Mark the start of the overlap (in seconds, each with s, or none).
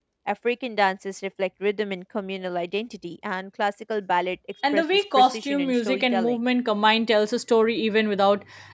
4.6 s